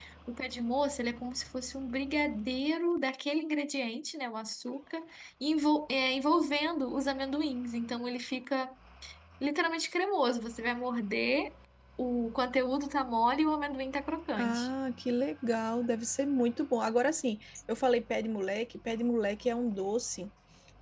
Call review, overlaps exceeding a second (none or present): none